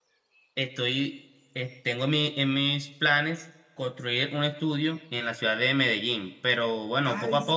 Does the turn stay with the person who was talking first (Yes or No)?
No